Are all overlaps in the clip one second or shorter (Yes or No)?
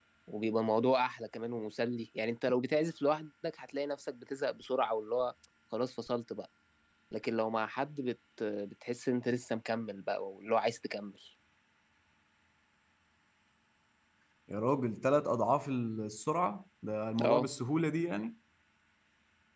Yes